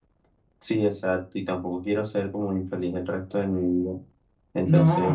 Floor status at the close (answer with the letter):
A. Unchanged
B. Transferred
B